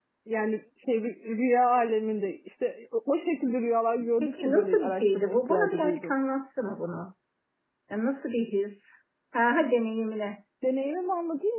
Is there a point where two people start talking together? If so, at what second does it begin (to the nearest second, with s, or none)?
4 s